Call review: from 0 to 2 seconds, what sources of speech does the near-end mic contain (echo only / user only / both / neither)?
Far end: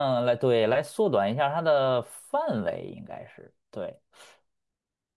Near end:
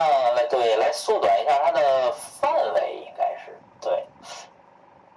echo only